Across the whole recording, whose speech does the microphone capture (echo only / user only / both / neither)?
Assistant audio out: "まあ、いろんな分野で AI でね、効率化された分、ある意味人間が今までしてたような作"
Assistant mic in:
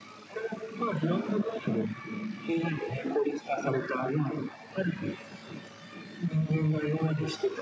echo only